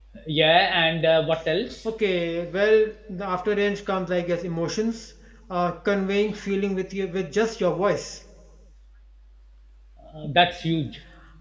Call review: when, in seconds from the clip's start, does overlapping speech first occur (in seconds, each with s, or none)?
none